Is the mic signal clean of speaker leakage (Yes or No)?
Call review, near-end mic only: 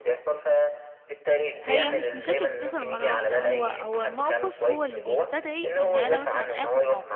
No